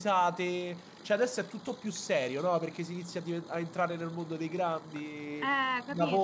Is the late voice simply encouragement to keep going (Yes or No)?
No